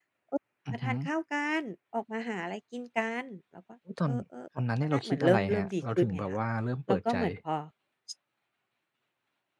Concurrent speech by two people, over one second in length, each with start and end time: 4.9-6.4

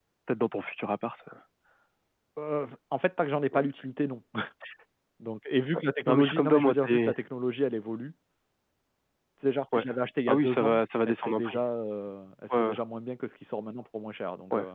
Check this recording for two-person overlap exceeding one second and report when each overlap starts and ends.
5.7-7.1, 10.3-11.6

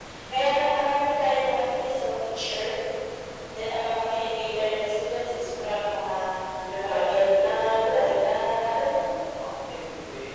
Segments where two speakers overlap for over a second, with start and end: 6.8-8.0

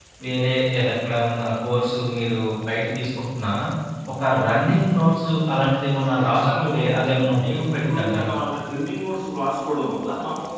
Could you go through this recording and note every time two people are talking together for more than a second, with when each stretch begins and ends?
6.2-8.3

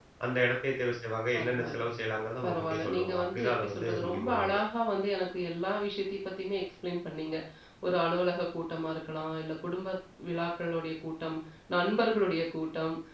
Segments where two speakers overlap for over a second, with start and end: 2.4-4.6

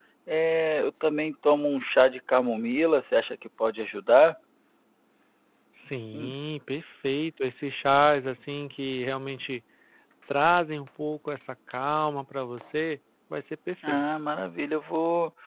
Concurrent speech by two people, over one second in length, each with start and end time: none

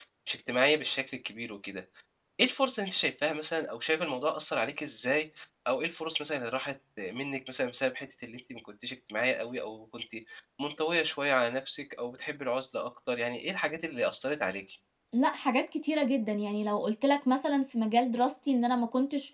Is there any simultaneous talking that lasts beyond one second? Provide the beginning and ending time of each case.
none

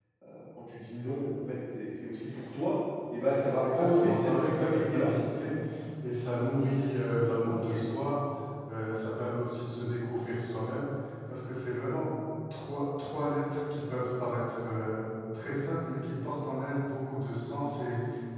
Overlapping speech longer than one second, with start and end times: 3.7-5.1

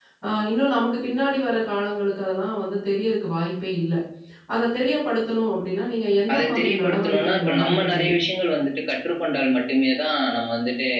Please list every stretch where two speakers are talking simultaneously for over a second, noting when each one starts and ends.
6.3-8.1

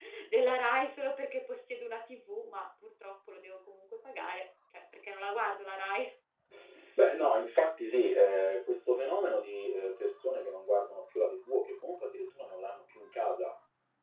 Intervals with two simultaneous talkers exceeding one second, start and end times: none

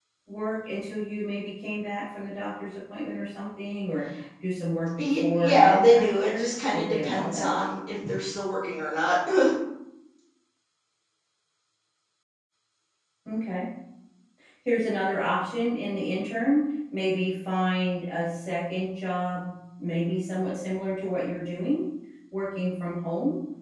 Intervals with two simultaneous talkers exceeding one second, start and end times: 5.0-7.6

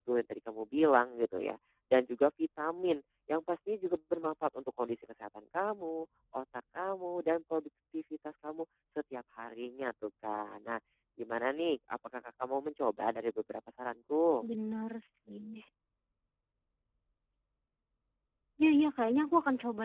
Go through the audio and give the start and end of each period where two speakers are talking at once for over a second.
none

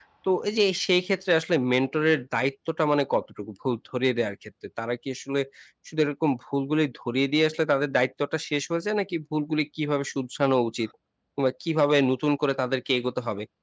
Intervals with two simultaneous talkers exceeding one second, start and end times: none

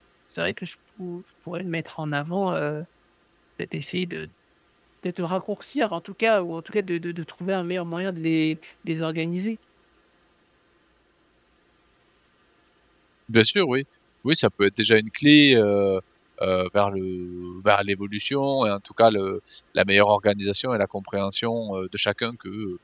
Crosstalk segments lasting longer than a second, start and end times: none

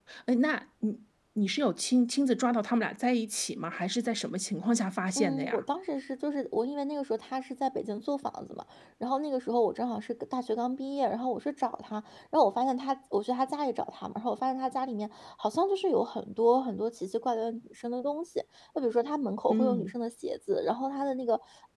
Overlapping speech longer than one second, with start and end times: none

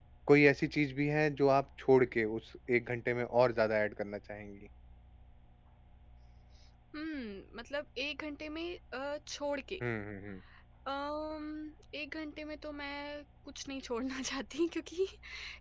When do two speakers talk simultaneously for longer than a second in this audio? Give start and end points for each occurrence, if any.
none

